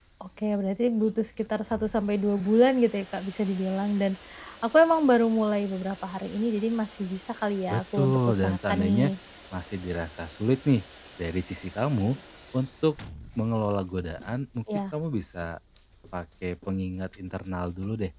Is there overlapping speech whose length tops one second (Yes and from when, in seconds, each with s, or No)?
Yes, from 7.7 s